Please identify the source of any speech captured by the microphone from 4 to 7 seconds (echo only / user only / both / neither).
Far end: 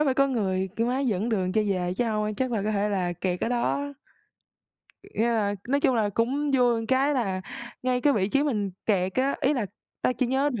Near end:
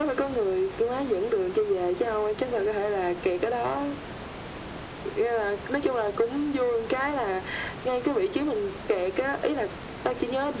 echo only